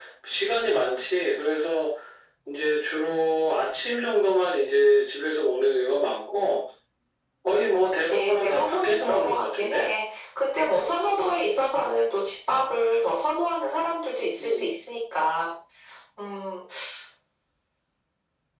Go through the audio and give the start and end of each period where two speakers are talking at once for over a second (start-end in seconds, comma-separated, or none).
8.0-9.9